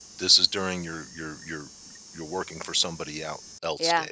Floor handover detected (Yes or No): Yes